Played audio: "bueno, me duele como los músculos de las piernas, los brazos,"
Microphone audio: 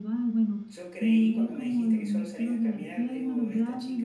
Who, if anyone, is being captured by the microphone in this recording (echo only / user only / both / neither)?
both